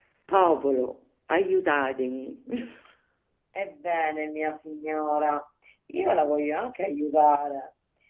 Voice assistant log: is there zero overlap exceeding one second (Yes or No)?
Yes